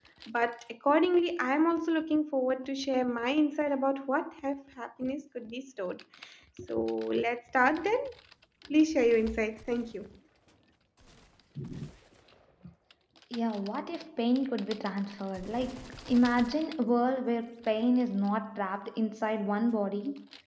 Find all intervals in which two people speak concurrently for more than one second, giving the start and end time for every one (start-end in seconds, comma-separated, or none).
none